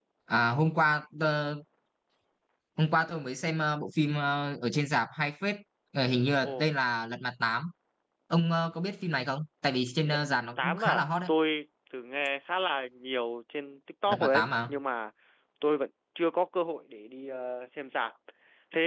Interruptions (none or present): present